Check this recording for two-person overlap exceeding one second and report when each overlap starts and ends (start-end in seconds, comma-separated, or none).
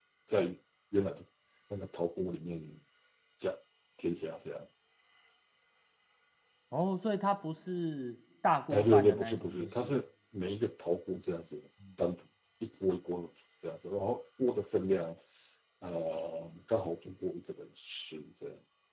8.7-10.0